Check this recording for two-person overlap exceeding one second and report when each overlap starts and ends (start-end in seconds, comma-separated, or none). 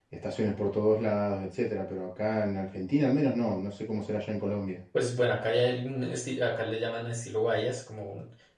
none